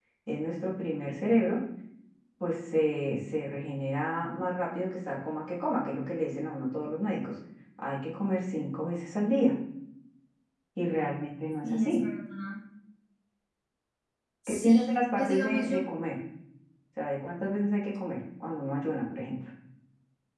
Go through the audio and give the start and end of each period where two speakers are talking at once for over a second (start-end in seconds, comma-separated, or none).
14.5-15.8